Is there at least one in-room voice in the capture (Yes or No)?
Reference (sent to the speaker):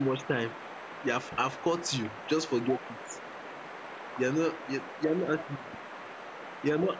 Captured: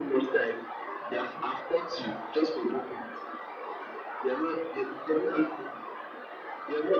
No